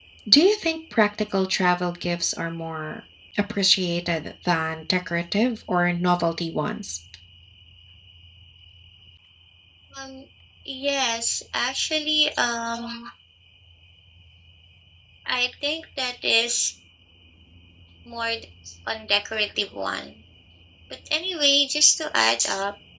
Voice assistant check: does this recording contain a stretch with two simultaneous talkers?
No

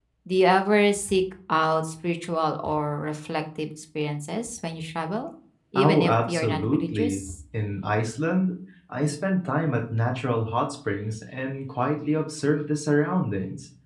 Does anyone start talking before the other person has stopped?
Yes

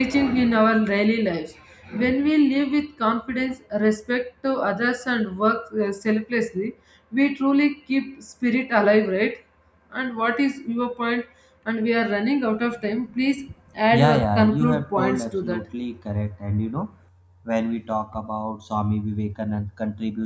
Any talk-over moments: Yes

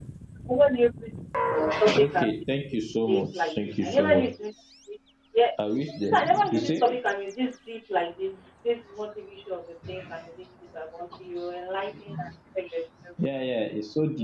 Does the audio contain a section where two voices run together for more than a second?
Yes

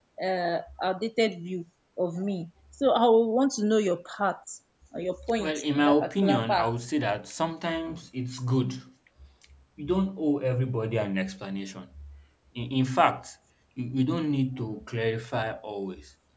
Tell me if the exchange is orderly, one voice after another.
No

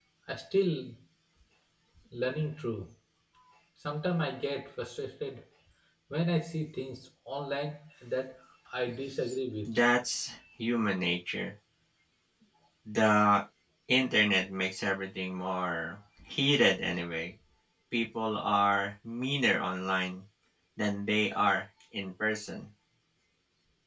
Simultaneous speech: No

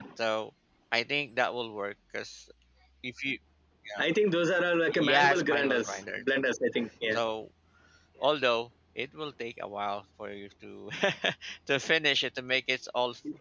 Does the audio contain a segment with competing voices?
Yes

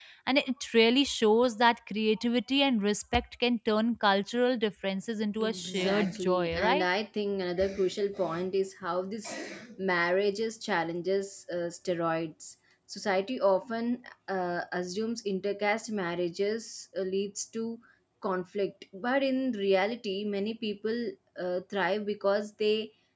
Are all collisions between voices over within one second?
No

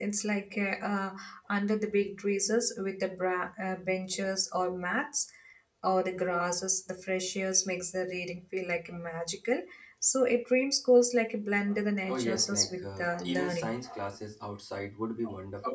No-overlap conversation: No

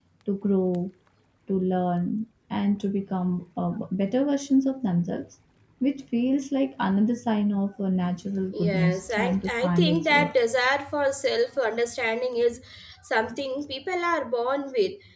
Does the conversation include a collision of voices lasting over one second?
Yes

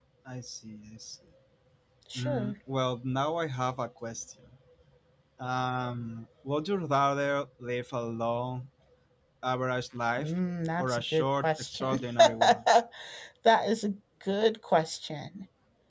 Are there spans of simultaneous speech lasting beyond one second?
Yes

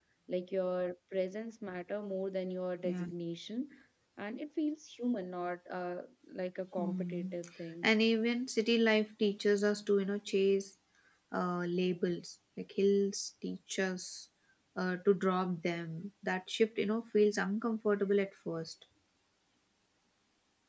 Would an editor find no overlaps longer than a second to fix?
Yes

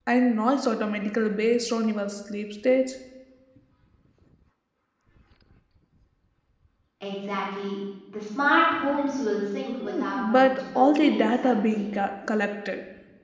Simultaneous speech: Yes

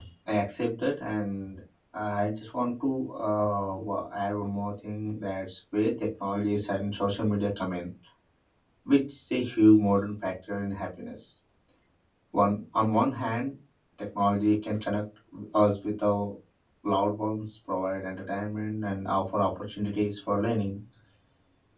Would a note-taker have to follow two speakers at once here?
No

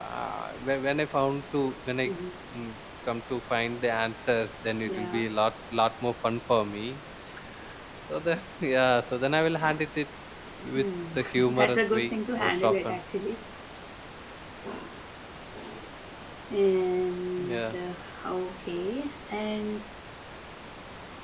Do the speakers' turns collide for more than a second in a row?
Yes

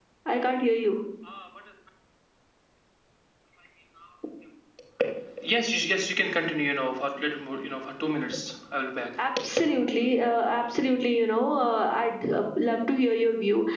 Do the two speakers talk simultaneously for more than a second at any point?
No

